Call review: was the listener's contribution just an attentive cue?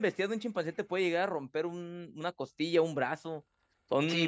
No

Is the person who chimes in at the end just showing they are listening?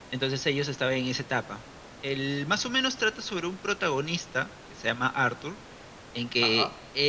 Yes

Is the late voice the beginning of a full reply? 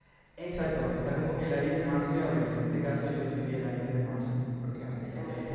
No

